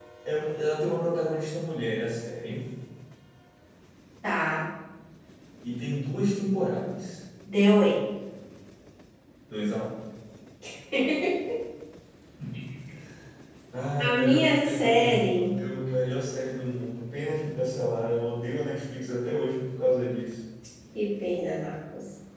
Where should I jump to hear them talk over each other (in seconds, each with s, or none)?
14.0 s